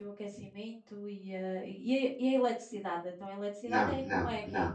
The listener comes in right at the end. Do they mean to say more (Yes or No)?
Yes